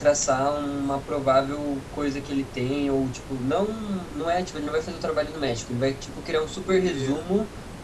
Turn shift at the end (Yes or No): No